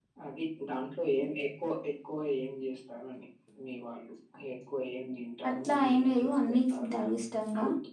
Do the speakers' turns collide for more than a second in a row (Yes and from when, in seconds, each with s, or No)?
Yes, from 5.4 s